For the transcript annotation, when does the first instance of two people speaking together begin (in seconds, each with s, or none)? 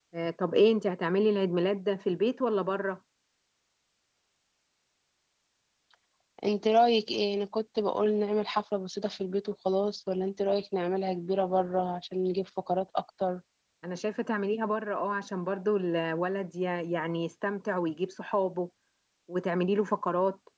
none